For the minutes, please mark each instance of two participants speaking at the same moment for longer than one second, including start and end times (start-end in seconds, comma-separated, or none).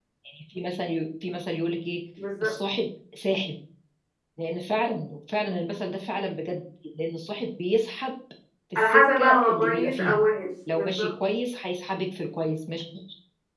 8.8-10.2